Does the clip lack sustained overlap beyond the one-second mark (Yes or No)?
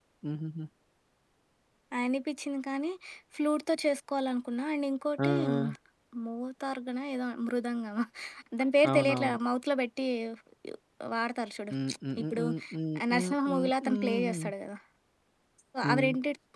No